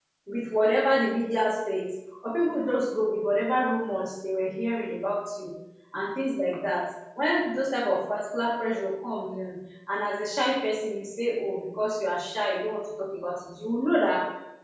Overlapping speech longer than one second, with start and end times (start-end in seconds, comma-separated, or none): none